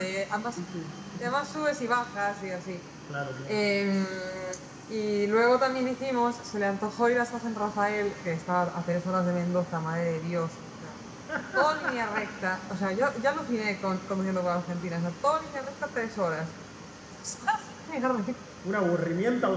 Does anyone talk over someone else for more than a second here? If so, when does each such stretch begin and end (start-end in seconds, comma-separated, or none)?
none